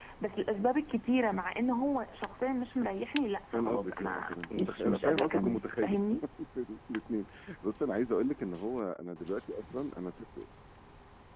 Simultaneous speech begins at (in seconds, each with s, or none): 3.5 s